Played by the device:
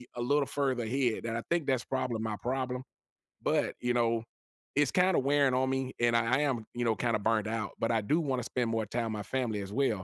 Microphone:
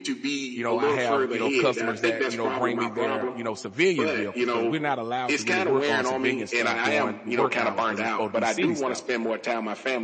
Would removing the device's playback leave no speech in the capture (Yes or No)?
No